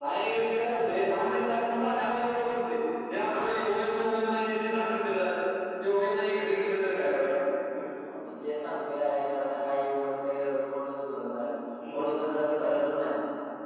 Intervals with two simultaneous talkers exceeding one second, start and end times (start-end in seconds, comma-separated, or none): none